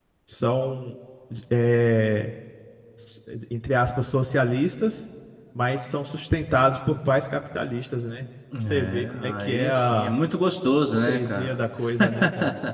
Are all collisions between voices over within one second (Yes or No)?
No